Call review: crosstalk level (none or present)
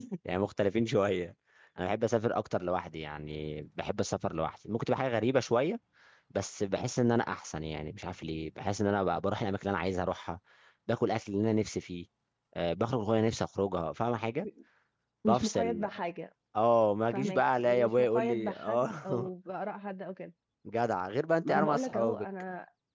present